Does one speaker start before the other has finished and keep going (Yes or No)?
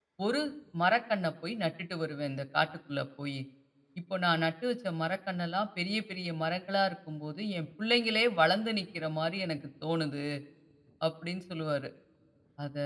No